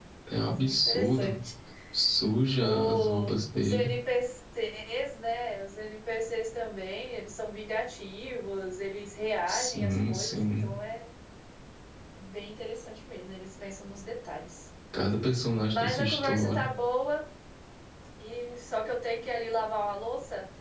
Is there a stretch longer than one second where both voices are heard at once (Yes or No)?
Yes